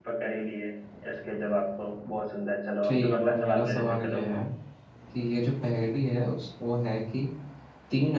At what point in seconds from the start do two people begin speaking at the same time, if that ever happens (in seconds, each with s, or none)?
2.8 s